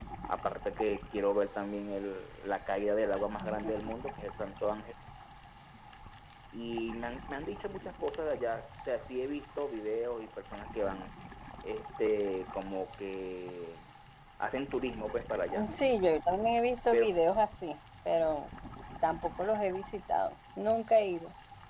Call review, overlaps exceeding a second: none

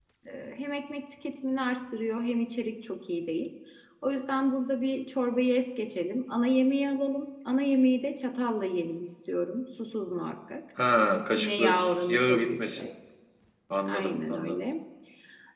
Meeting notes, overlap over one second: present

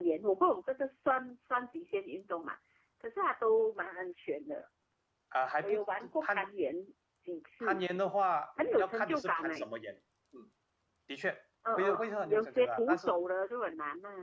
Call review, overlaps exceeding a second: present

